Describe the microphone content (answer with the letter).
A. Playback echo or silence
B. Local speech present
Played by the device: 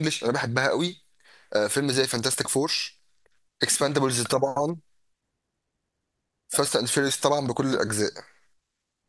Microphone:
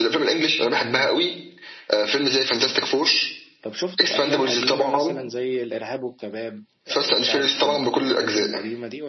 B